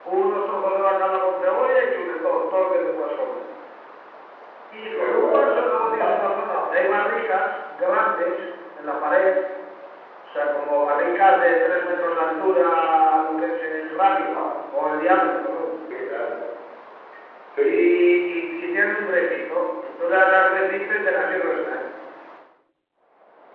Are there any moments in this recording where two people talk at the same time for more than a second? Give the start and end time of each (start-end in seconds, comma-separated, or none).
4.9-6.2